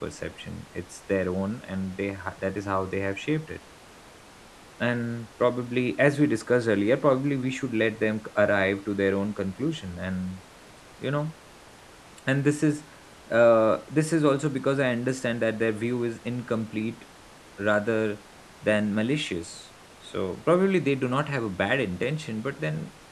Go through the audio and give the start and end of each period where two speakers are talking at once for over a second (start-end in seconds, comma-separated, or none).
none